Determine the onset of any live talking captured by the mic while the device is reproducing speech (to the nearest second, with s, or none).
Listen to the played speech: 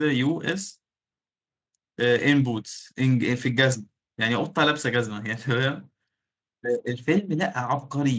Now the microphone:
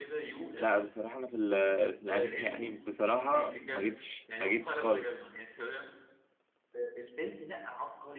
1 s